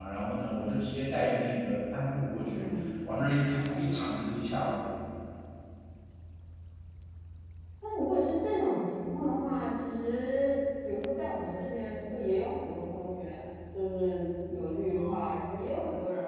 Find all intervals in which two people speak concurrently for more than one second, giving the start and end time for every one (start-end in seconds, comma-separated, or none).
none